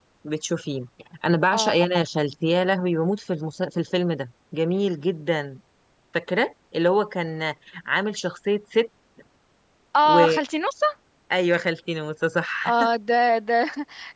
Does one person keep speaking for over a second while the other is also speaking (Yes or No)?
No